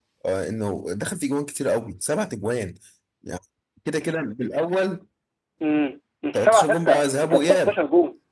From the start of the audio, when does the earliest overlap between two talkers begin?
6.3 s

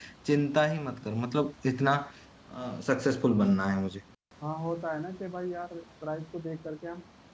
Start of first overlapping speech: none

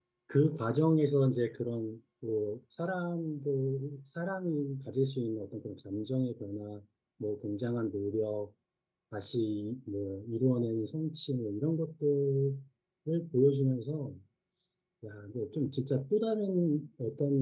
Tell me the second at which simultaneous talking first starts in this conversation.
none

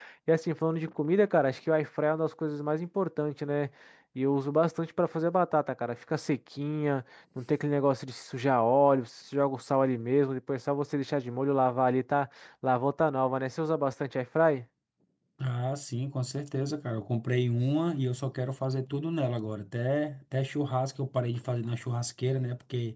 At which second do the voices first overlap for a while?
none

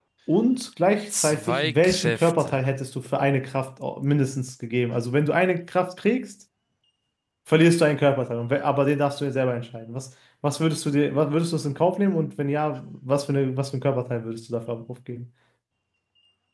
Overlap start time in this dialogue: 1.1 s

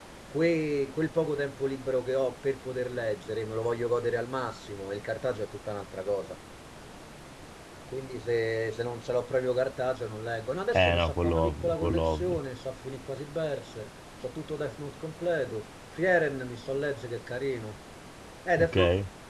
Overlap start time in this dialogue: 10.7 s

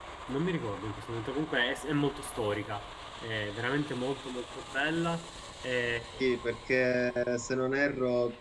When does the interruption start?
none

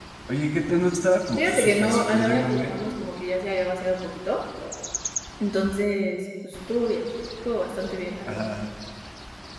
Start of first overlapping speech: 1.4 s

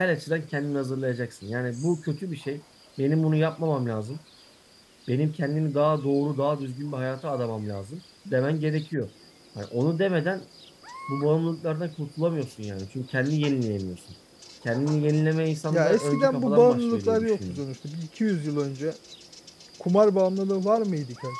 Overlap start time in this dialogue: 15.7 s

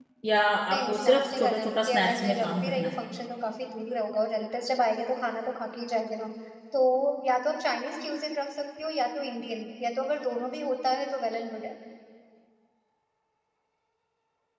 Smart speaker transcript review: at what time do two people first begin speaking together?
0.8 s

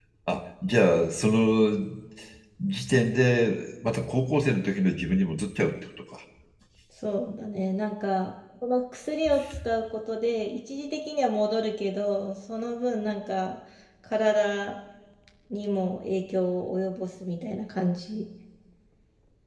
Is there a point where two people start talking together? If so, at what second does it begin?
none

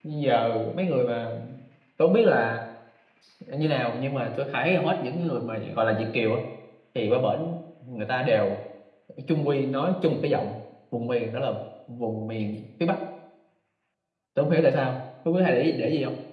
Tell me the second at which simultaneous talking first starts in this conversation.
none

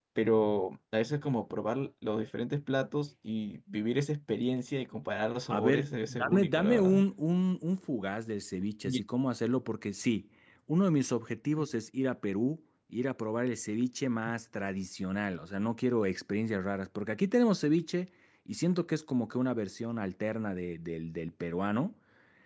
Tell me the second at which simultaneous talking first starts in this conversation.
5.5 s

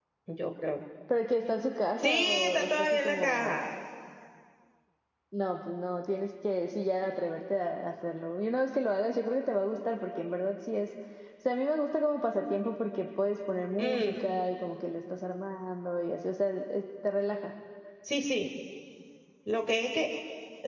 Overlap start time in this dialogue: 2.0 s

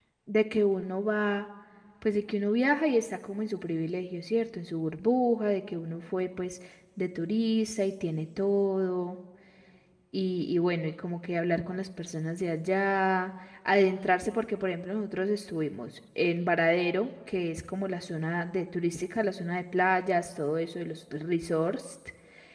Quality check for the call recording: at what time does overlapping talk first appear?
none

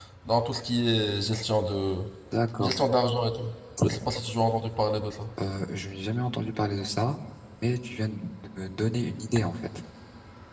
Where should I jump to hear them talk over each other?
none

